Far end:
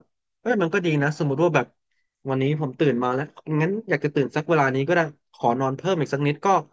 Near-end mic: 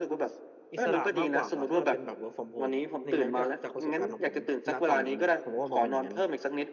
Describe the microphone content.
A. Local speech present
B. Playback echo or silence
A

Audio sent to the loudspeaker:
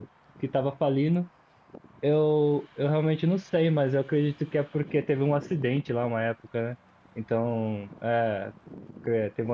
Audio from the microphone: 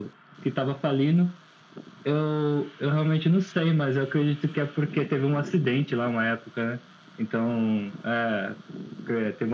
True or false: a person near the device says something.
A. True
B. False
B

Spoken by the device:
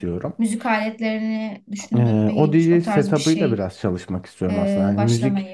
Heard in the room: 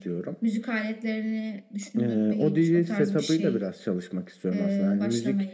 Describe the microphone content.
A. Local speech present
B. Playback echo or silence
B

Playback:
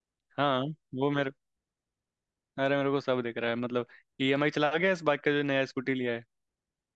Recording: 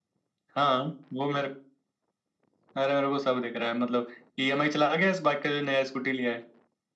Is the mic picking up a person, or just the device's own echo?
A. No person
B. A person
A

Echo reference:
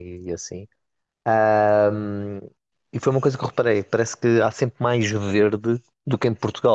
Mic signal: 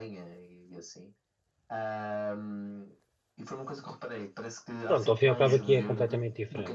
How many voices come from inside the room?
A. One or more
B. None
A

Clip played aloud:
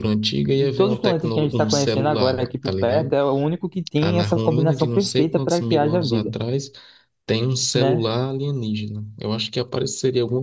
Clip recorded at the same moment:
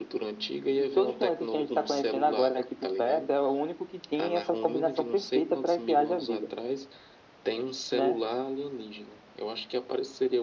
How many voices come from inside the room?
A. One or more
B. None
B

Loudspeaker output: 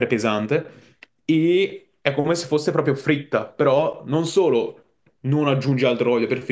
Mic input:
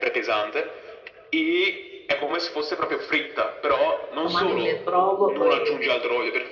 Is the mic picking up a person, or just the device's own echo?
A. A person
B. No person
A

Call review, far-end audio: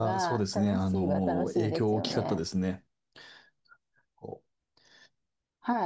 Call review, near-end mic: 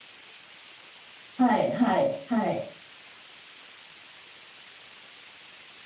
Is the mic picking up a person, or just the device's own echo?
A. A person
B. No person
A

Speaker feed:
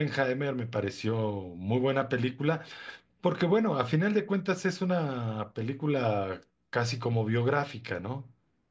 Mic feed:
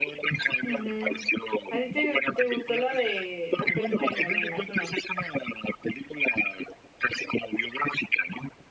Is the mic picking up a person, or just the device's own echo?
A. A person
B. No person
A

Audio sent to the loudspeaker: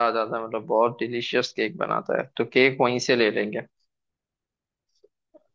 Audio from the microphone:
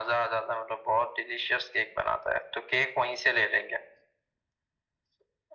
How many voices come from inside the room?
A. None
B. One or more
A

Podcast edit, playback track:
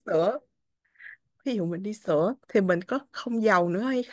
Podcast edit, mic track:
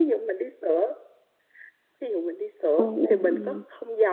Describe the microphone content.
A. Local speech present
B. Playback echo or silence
A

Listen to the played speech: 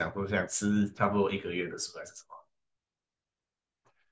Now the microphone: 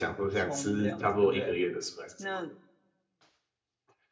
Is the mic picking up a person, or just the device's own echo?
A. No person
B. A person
B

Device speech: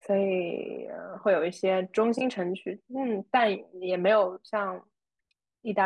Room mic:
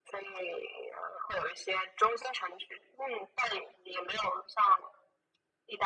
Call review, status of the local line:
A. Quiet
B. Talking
A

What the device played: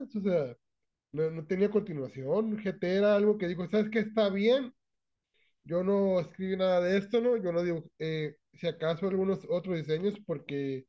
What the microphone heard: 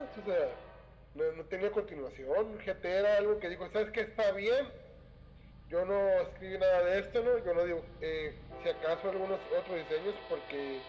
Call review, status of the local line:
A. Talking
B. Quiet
B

